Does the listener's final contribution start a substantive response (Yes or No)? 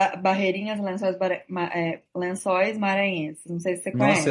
Yes